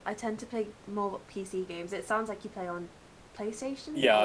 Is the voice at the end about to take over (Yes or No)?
Yes